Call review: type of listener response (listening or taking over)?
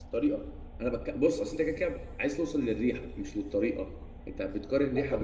taking over